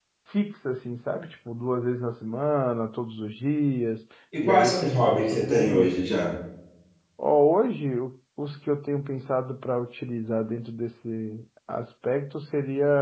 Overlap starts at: 4.4 s

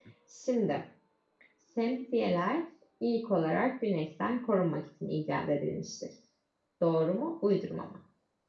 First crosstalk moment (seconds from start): none

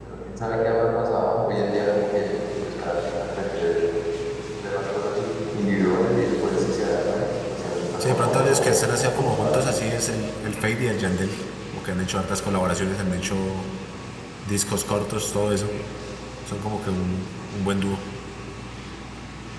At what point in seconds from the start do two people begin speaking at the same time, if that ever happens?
8.0 s

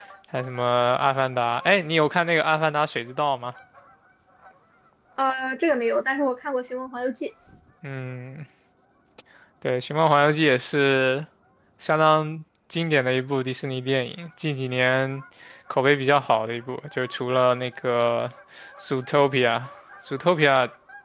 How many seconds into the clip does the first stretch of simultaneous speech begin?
none

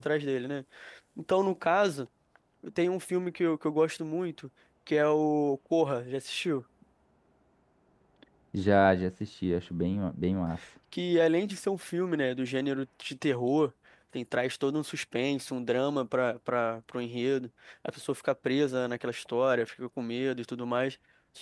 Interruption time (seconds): none

